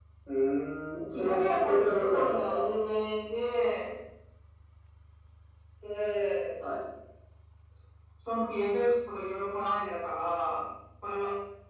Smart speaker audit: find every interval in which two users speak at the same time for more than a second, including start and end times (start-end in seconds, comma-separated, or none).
1.1-2.6